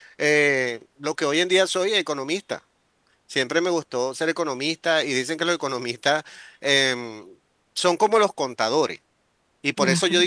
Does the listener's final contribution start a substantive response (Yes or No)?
No